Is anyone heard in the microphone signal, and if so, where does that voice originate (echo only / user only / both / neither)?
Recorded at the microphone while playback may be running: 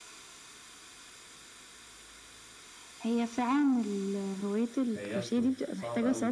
both